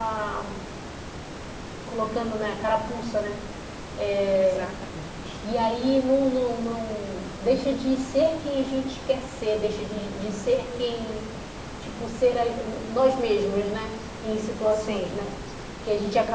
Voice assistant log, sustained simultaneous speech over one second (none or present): none